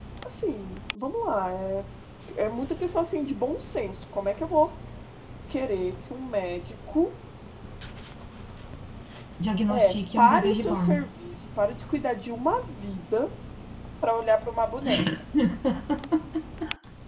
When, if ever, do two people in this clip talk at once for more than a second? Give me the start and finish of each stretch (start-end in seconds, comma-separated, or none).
9.7-10.9